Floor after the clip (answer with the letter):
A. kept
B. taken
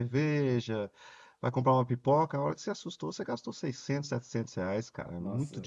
B